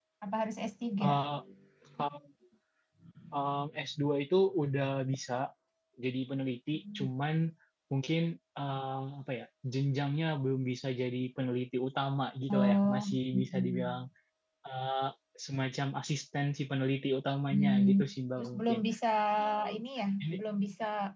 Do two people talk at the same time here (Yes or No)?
Yes